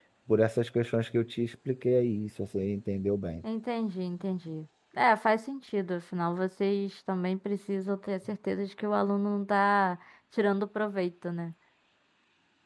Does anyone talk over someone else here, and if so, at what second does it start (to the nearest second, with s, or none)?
none